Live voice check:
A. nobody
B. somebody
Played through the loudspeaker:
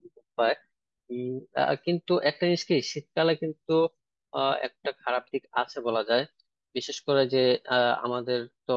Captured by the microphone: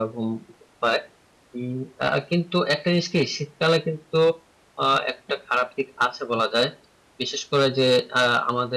A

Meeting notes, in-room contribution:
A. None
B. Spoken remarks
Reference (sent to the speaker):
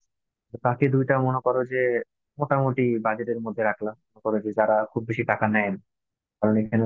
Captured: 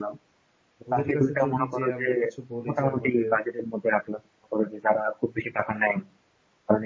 B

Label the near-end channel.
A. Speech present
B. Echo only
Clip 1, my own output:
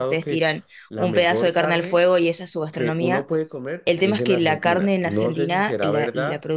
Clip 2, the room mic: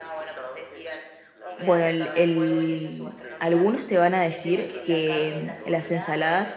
A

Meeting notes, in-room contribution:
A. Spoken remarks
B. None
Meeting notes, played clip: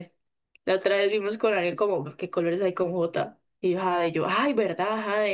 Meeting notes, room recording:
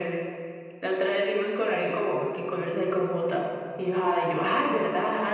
B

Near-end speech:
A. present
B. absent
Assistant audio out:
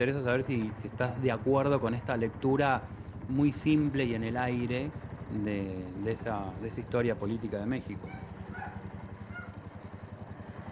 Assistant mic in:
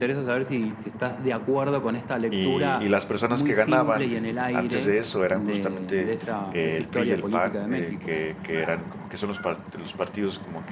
A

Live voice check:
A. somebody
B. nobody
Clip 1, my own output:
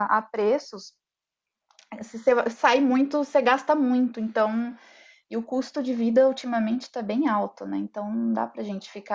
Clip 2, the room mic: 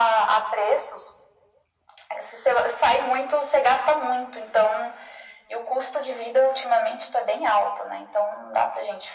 B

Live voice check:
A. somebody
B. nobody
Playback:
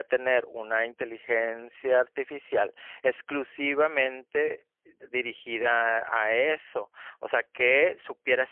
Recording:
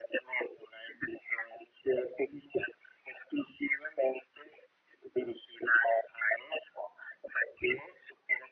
B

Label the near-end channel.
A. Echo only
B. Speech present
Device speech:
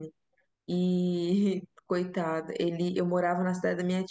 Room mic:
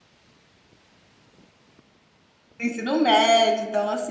B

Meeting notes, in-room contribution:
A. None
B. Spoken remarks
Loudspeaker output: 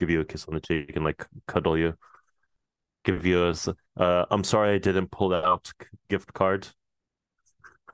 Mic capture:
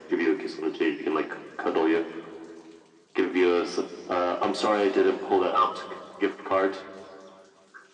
A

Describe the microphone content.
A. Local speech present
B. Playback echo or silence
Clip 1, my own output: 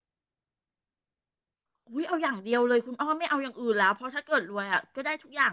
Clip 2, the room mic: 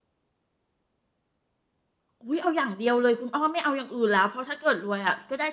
B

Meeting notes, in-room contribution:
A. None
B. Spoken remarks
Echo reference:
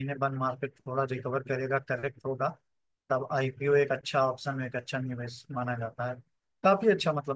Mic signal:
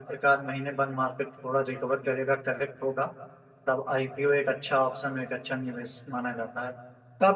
A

